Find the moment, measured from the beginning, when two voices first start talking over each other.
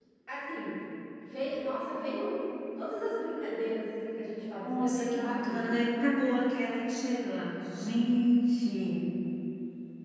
4.6 s

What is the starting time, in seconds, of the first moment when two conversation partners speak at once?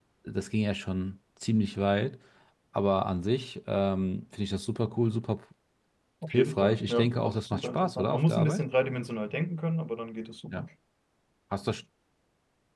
6.3 s

